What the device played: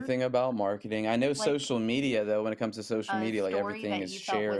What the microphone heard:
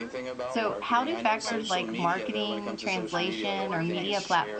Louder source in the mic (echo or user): user